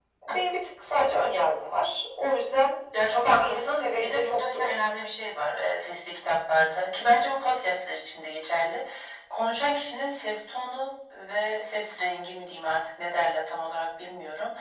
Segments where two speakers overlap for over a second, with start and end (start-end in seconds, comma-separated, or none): 3.2-4.7